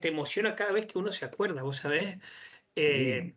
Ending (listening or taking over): listening